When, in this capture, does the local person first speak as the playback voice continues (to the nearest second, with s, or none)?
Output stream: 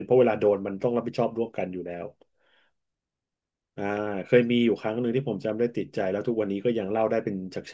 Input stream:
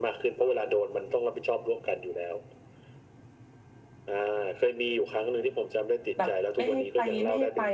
6 s